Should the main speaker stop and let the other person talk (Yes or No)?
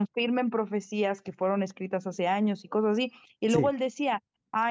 No